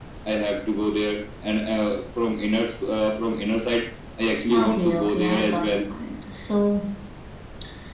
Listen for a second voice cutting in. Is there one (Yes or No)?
Yes